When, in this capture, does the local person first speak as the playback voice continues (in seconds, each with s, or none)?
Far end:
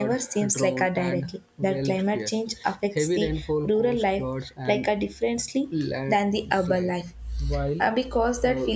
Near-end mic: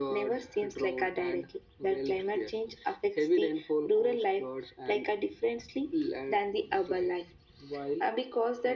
none